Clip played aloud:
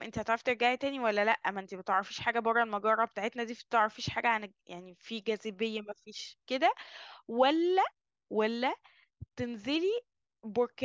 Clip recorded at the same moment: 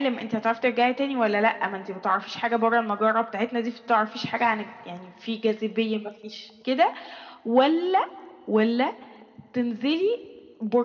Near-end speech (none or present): none